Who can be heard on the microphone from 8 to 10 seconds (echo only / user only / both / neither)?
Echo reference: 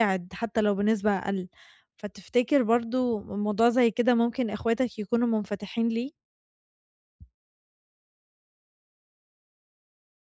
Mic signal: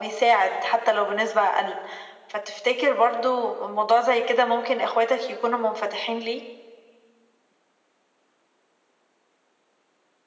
neither